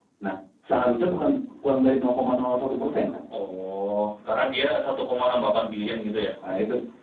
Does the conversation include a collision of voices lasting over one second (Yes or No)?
No